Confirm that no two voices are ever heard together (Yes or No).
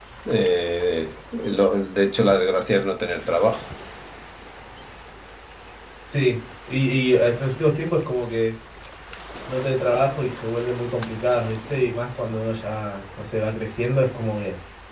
Yes